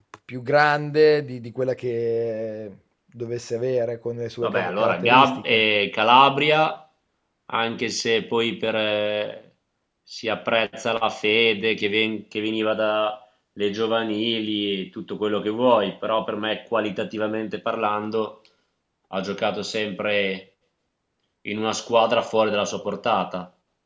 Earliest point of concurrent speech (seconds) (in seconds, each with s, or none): 4.4 s